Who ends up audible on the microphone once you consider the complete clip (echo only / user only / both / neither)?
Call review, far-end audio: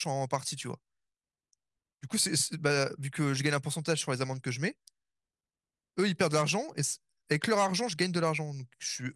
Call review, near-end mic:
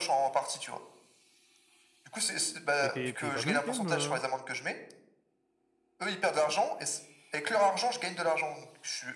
both